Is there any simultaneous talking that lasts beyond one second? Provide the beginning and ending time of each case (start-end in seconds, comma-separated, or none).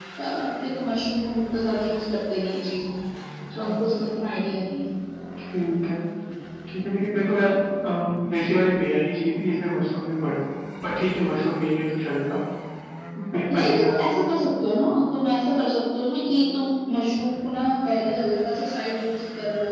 none